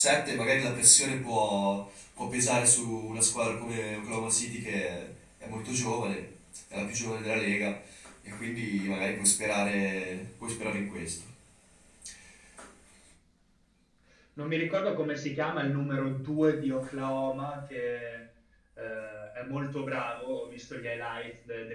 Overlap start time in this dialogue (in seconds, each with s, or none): none